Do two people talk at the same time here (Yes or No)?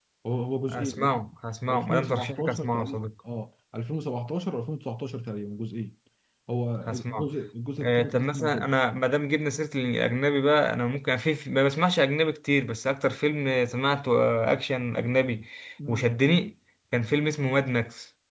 Yes